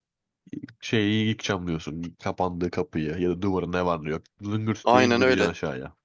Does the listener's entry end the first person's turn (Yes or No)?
Yes